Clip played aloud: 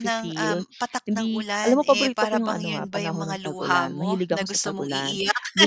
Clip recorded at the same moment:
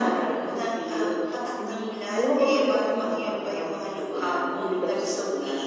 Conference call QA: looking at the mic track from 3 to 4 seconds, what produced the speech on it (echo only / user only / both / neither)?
echo only